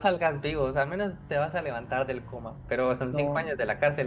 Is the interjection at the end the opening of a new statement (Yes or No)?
No